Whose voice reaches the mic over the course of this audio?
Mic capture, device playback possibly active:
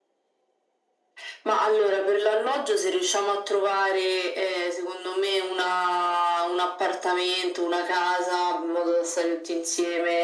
echo only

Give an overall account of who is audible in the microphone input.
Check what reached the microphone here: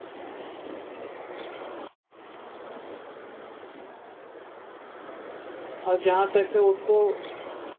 user only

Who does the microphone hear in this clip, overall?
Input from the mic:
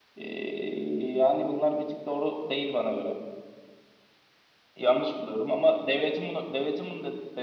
echo only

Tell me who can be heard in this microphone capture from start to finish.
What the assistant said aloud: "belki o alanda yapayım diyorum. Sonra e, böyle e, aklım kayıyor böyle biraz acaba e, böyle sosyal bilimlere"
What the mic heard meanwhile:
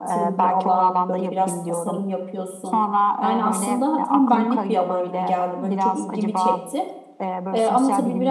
both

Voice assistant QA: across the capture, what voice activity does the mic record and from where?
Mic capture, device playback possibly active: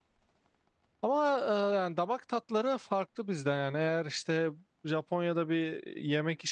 user only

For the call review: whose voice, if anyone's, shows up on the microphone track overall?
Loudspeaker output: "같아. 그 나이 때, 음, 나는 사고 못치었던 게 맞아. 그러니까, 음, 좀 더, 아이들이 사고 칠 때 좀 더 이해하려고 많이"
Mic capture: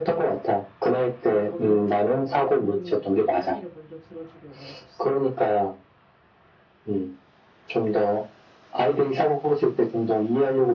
both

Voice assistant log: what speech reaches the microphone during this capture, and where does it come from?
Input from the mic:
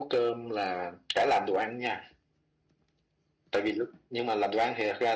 echo only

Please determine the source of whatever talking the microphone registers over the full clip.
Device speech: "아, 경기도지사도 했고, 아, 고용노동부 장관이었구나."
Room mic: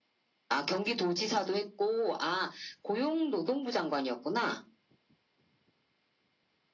echo only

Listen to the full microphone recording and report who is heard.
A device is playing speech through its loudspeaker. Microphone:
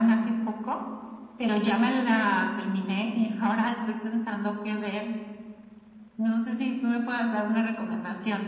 echo only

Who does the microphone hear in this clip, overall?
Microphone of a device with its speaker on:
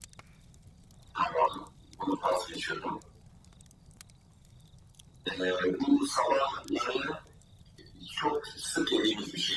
echo only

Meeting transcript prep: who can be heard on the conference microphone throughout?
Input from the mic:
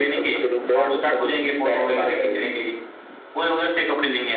echo only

